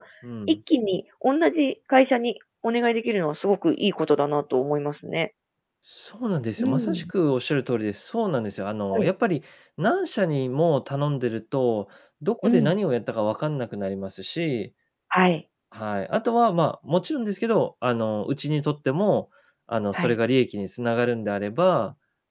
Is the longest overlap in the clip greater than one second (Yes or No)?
No